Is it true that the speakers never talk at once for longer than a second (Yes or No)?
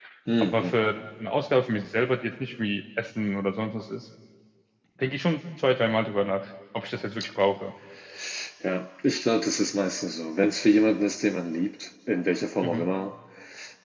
Yes